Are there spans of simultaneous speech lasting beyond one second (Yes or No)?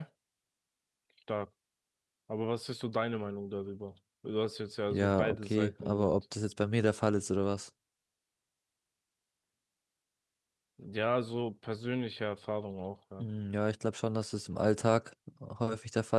Yes